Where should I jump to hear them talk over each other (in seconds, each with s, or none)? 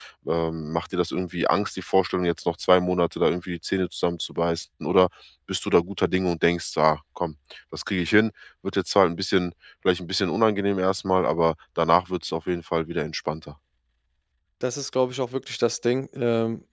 none